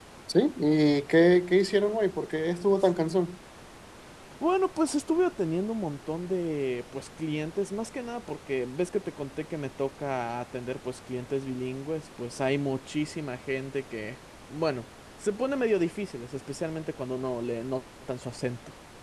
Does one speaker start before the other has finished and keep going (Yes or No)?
No